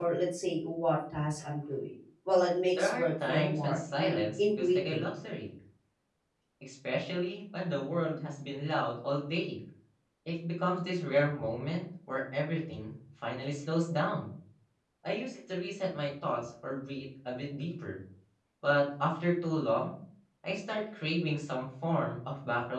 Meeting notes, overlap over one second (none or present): present